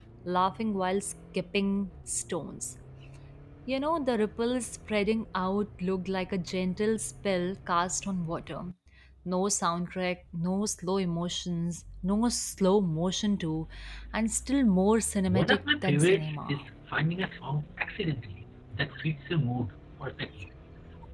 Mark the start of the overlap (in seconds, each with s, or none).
15.3 s